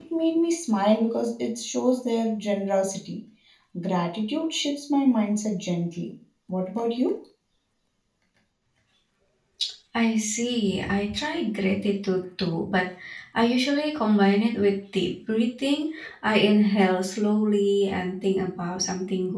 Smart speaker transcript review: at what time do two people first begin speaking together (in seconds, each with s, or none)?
none